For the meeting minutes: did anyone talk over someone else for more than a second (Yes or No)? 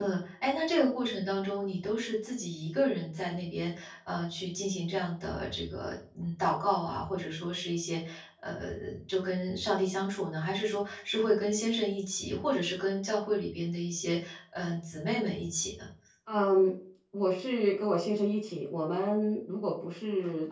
No